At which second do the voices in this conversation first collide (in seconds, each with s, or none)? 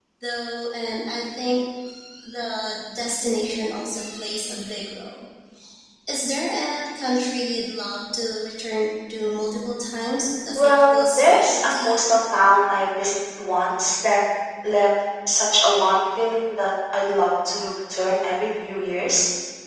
10.6 s